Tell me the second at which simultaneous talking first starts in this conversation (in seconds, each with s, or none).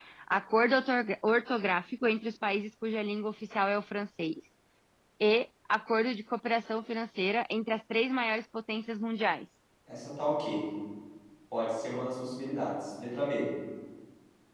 none